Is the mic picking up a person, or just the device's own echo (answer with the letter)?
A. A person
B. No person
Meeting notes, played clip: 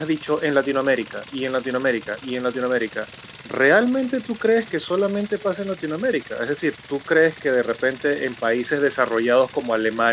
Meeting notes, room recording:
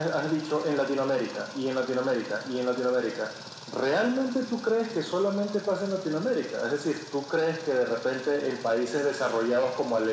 B